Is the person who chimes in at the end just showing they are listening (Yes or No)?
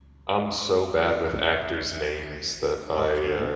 No